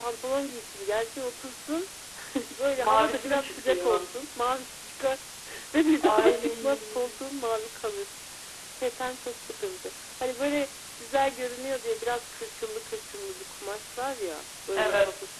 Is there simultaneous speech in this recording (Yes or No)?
Yes